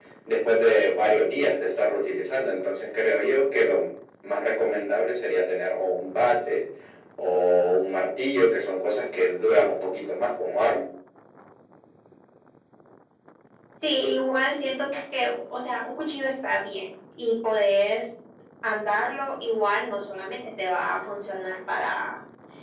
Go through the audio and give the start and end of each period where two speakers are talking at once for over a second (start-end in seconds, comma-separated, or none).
none